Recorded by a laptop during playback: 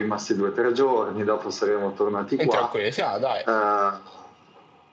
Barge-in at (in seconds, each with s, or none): 2.4 s